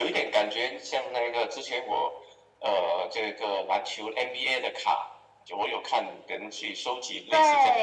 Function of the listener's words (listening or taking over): taking over